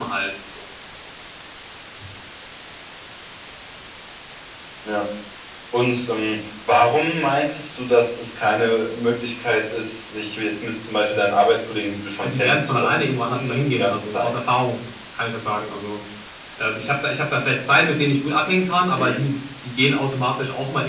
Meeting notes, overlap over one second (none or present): present